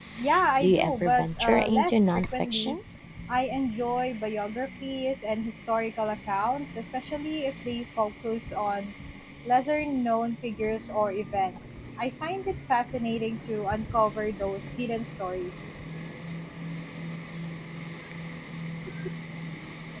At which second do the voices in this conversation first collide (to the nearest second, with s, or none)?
1 s